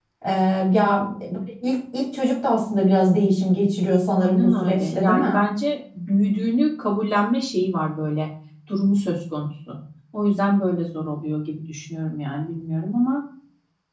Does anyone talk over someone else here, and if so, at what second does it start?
4 s

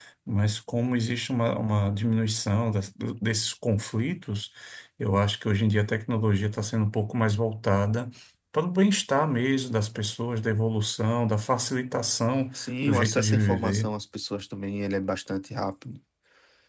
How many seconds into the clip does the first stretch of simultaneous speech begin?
13 s

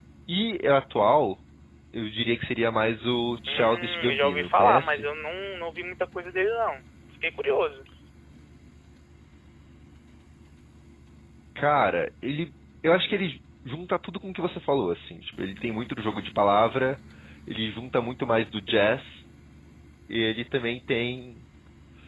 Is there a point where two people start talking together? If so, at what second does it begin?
3 s

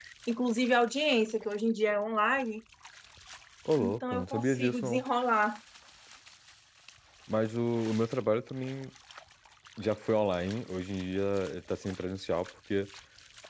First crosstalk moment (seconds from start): 4 s

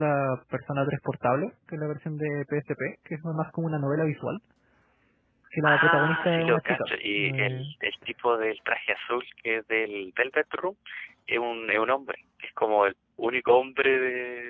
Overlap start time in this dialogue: 6 s

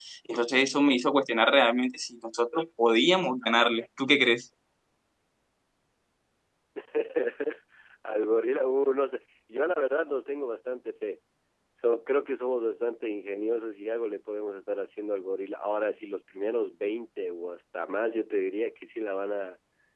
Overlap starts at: none

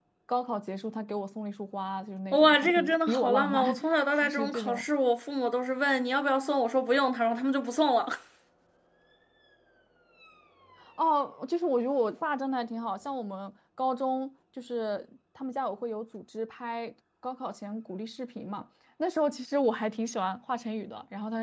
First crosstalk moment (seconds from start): 2 s

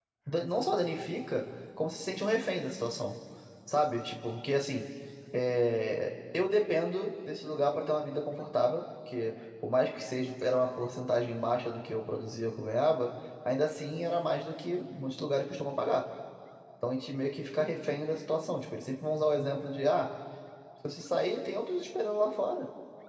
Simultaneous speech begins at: none

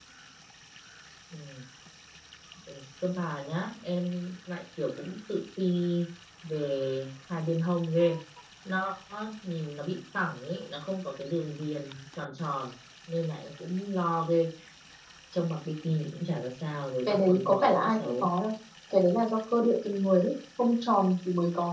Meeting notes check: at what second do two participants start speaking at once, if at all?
17 s

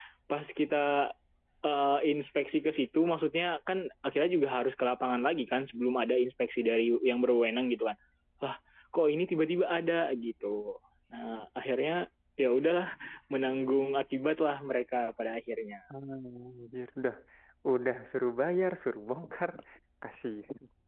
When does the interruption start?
none

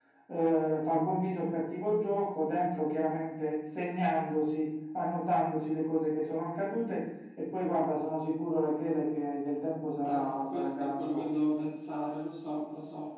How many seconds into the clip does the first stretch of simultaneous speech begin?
10 s

